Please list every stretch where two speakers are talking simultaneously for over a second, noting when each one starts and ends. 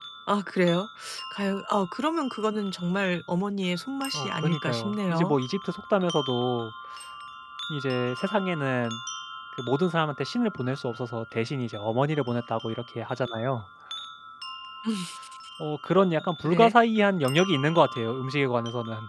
4.1-5.3

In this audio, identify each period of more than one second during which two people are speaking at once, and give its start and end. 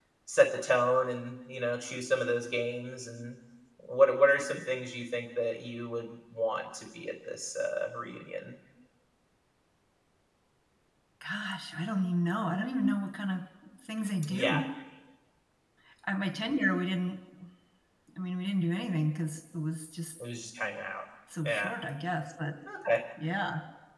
none

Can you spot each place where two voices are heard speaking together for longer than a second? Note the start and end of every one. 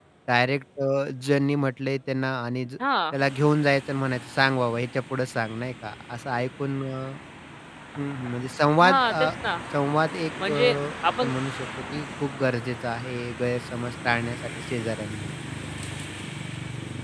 none

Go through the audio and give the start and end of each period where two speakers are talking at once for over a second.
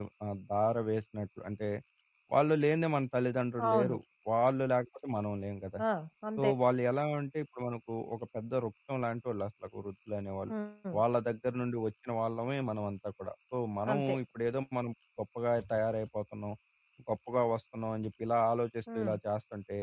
none

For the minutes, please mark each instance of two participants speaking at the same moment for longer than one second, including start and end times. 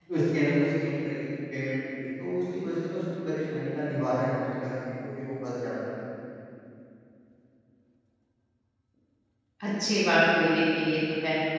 none

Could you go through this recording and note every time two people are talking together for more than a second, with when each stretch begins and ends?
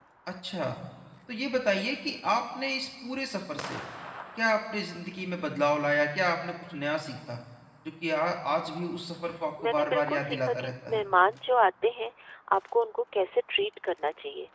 9.6-11.0

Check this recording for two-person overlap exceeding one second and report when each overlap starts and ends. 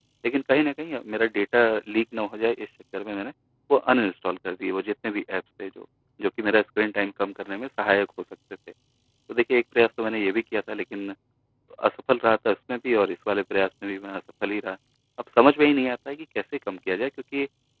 none

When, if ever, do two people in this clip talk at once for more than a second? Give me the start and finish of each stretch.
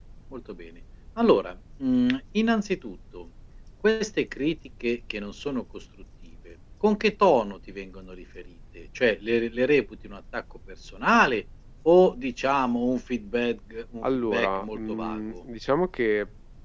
14.0-15.4

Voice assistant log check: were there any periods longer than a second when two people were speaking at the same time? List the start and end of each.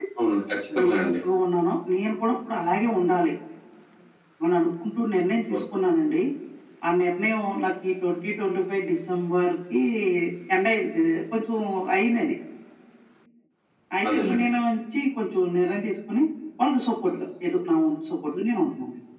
none

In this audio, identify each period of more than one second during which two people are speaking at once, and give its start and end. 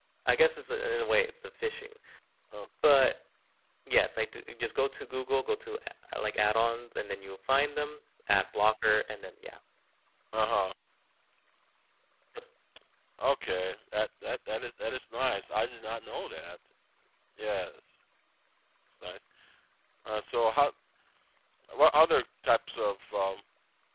none

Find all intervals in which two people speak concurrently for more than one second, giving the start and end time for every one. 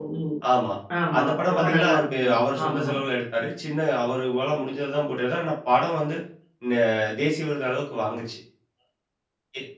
1.2-2.9

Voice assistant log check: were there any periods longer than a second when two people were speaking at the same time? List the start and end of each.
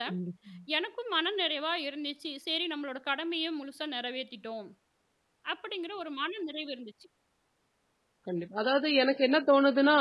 none

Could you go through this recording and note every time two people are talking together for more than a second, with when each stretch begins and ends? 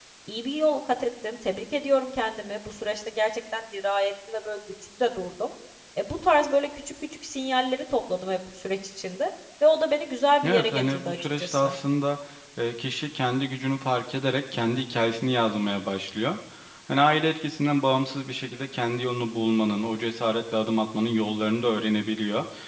10.4-11.7

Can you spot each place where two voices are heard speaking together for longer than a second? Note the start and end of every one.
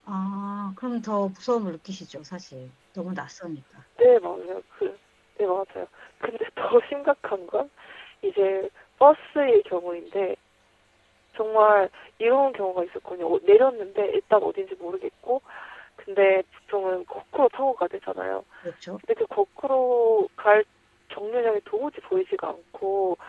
none

